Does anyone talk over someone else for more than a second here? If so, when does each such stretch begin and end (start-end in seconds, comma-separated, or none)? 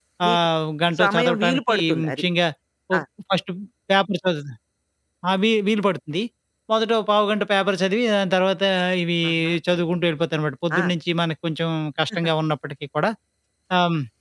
1.0-2.2